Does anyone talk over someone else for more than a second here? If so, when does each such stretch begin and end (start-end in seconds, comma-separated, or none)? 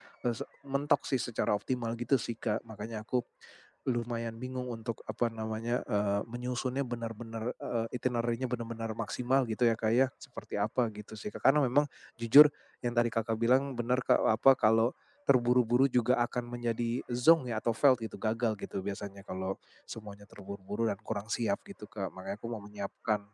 none